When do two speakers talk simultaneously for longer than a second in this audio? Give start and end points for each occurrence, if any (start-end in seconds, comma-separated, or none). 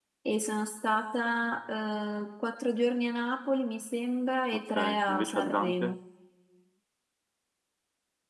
4.5-6.0